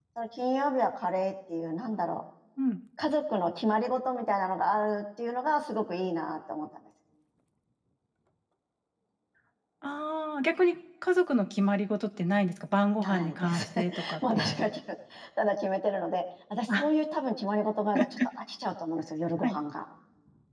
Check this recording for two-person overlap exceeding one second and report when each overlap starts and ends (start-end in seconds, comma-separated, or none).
13.0-14.7